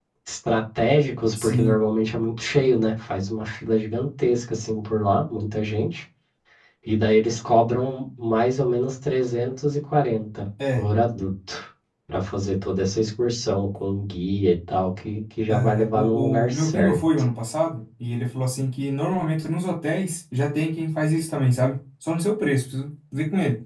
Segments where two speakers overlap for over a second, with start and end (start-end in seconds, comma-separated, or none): 15.5-17.0